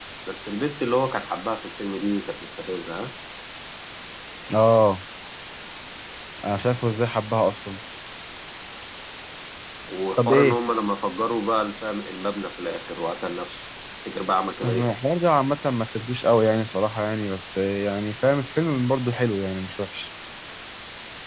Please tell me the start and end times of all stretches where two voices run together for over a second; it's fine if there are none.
none

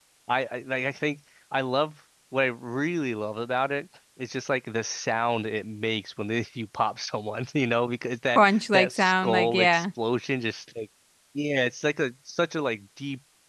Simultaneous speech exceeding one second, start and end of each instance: 8.3-9.8

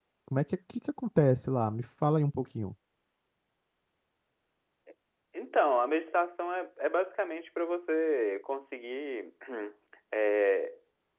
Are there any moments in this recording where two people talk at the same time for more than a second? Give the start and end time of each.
none

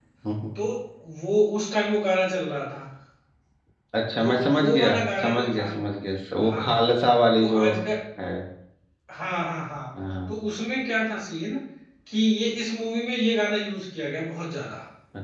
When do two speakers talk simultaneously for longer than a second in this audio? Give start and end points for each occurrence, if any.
4.2-5.7

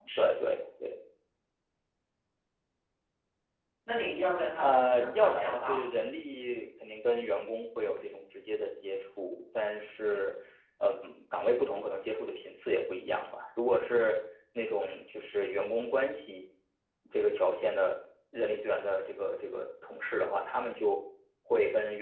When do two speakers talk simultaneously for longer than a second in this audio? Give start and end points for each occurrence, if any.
4.6-5.8

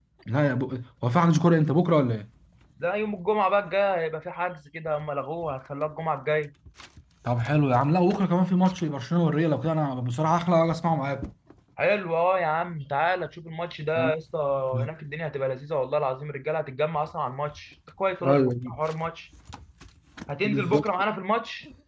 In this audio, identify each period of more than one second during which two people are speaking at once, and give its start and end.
none

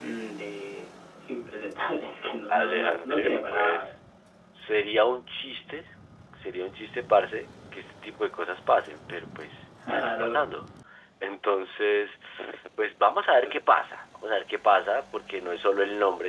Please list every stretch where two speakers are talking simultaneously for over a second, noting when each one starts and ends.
2.5-3.9

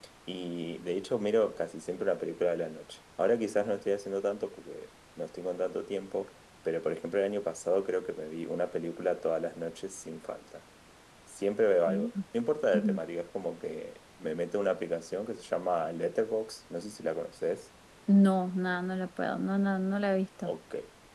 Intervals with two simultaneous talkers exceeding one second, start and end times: none

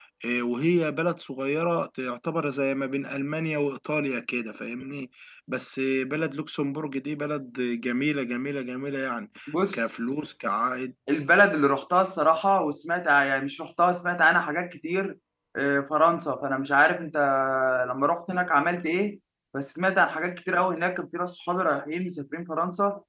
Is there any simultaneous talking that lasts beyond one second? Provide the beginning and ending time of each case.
none

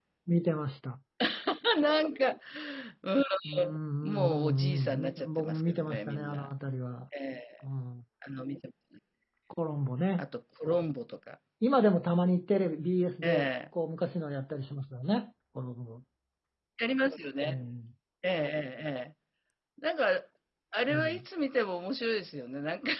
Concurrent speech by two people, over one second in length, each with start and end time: 4.1-6.4

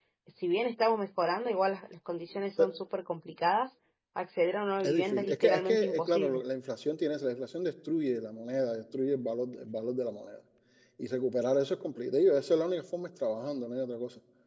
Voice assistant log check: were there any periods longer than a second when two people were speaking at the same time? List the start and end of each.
4.8-6.4

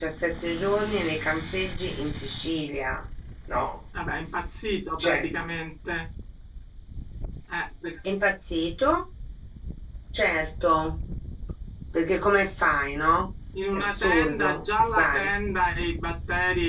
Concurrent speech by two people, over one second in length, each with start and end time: 13.7-15.3

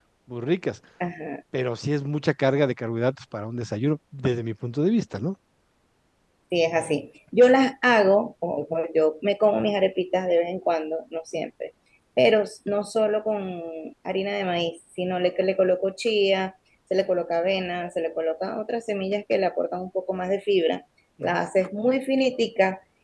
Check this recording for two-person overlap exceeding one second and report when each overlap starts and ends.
none

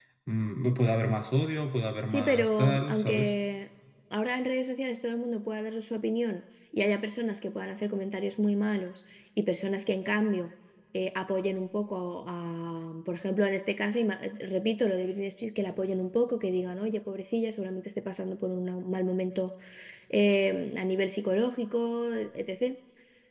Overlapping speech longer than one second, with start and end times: 2.1-3.3

